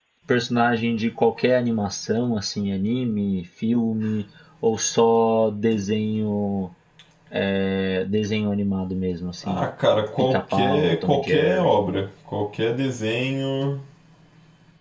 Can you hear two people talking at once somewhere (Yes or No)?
Yes